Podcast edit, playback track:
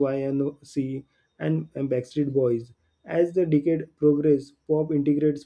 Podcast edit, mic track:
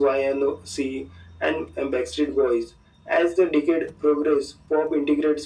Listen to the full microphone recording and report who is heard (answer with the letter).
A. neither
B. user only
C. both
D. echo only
D